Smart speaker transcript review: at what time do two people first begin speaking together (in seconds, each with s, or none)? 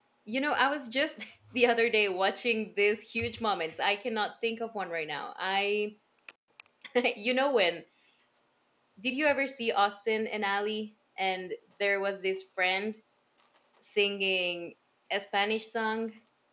none